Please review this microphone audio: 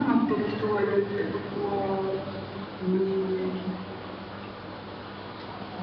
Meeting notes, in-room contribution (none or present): none